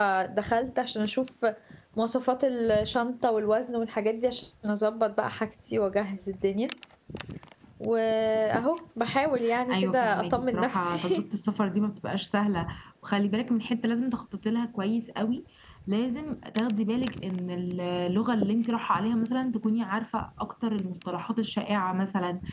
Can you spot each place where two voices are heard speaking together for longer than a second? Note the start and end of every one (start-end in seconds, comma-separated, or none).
9.7-11.2